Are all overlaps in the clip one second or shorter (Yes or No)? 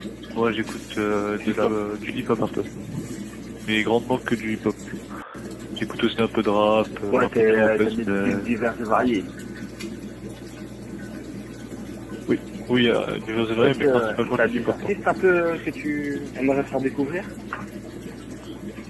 No